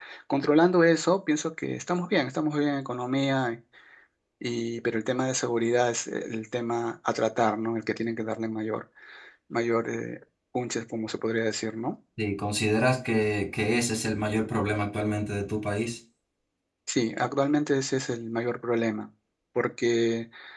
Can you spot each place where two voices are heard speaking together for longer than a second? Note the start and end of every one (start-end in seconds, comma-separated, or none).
none